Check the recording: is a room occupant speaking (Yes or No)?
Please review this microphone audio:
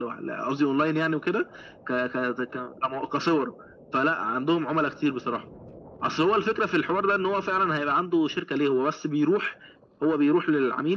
No